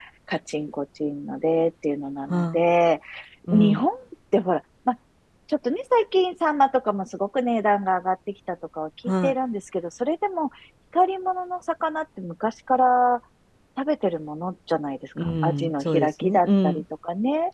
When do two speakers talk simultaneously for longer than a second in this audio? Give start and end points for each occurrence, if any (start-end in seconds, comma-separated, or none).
15.2-16.8